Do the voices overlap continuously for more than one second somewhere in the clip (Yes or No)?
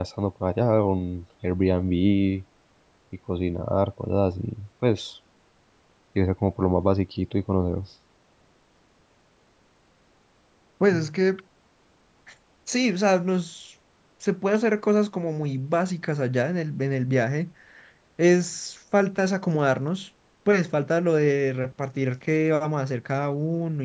No